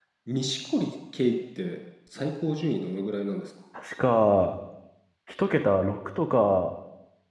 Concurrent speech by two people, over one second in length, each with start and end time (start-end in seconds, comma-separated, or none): none